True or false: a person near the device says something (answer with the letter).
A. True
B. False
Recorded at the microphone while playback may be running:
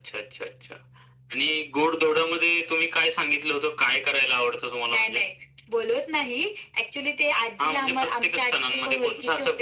B